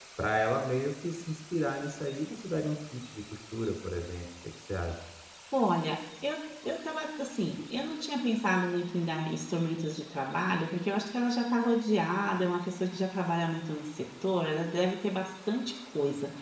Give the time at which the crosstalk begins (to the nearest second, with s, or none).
none